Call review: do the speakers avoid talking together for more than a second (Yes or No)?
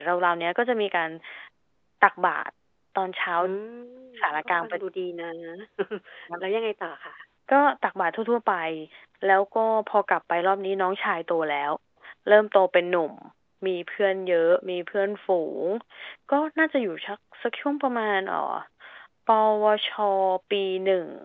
Yes